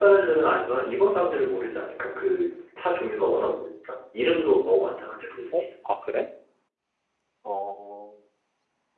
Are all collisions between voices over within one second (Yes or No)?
Yes